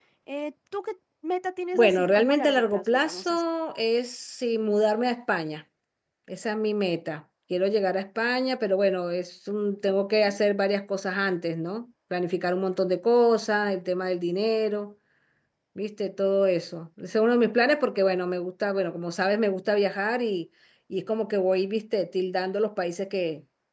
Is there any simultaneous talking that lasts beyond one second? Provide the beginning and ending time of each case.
1.7-3.5

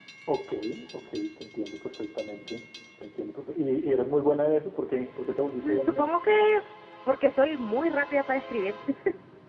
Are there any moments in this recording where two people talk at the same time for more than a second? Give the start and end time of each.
none

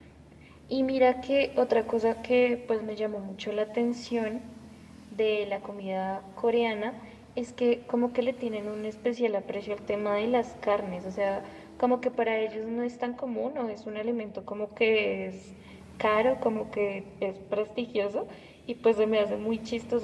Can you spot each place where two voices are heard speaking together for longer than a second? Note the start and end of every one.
none

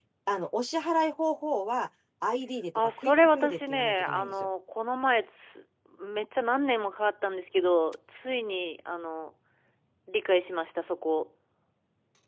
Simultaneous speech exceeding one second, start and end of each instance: 2.8-4.3

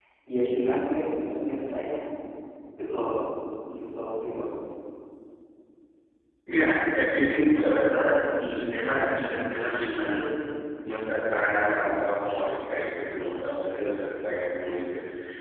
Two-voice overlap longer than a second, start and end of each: none

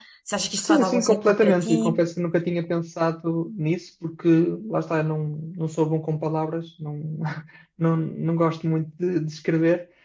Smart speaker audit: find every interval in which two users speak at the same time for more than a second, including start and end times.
0.6-2.0

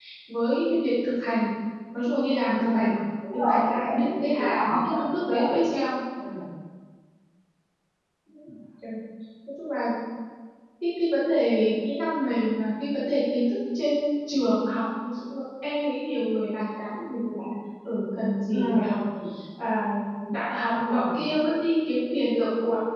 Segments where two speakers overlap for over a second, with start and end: 3.3-5.5

